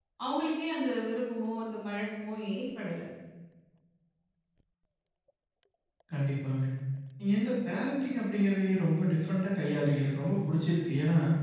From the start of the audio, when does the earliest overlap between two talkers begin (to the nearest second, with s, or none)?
none